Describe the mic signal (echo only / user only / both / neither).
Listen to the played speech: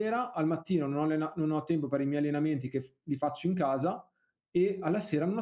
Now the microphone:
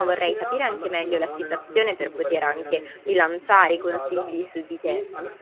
both